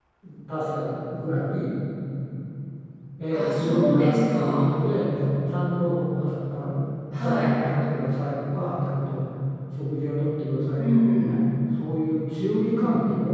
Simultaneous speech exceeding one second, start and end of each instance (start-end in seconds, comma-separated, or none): 3.3-4.7